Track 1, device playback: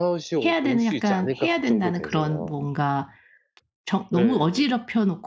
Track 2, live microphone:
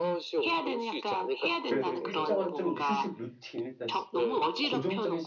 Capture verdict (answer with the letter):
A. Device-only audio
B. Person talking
B